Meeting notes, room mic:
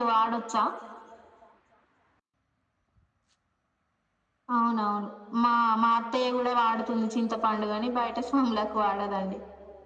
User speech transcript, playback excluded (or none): none